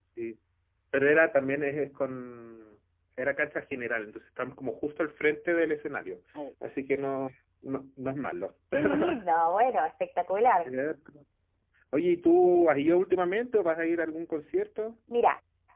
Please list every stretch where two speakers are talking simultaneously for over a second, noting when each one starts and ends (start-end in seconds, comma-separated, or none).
none